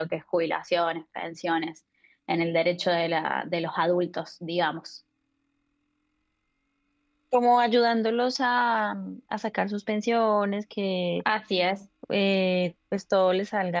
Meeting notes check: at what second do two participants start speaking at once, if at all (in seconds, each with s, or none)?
none